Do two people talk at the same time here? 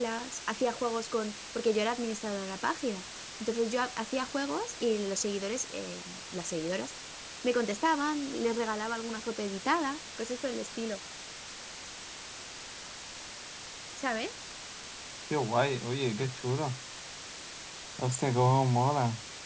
No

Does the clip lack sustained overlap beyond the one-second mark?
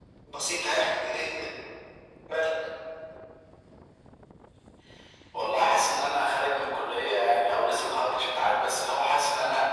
Yes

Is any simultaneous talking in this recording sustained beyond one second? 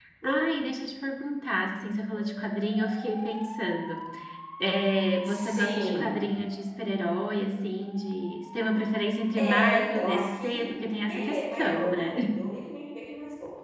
Yes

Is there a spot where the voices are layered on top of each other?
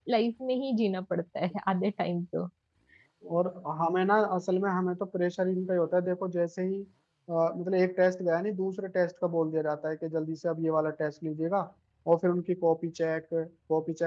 No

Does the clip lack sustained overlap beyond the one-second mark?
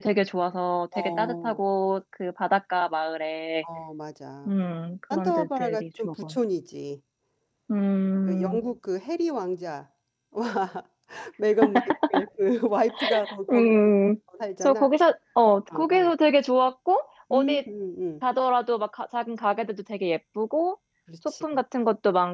No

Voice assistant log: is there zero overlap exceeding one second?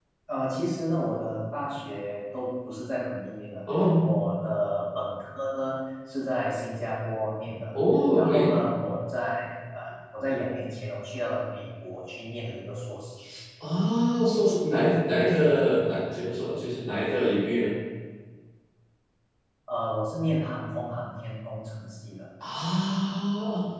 Yes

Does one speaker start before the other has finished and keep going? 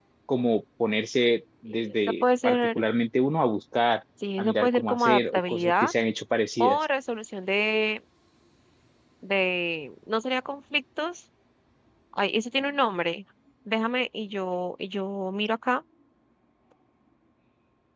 Yes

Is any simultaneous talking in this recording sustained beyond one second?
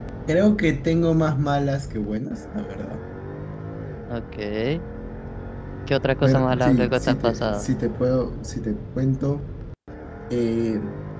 Yes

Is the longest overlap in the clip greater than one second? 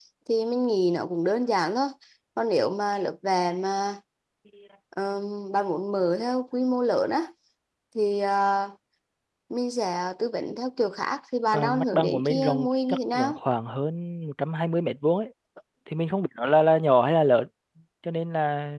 Yes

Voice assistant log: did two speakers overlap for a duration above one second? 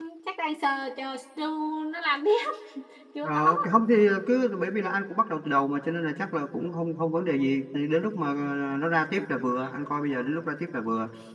No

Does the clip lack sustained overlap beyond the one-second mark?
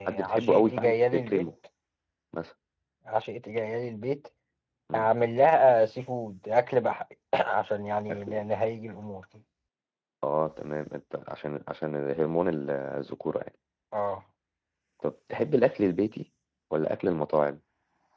No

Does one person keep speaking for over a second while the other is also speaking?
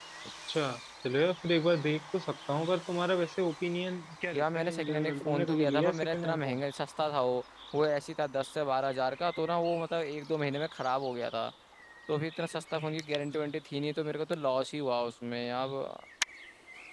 Yes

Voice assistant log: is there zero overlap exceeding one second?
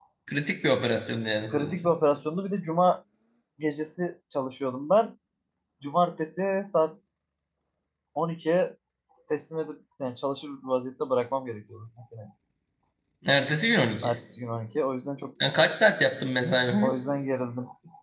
Yes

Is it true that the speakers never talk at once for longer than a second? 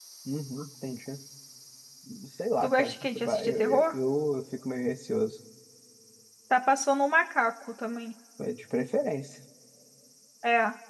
No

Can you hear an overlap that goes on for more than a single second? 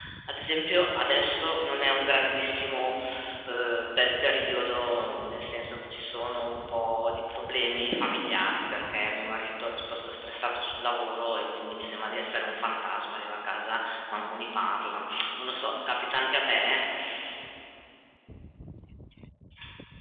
No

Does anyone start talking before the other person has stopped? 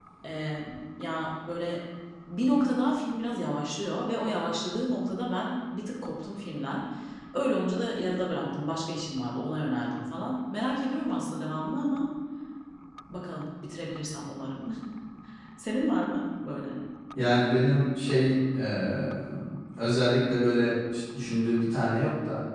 No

